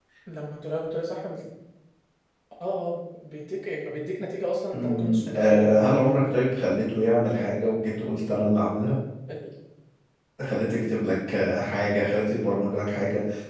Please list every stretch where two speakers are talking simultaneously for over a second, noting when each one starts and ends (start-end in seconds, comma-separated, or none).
4.7-6.3